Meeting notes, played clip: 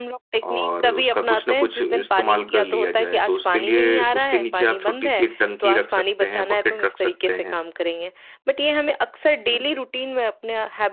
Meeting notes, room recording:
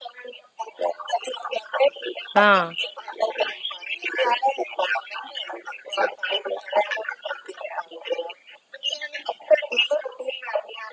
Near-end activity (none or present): present